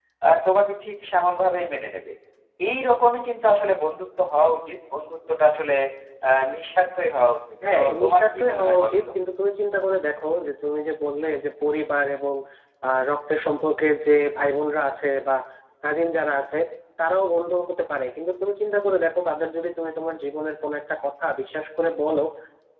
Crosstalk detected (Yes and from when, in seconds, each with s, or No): Yes, from 7.6 s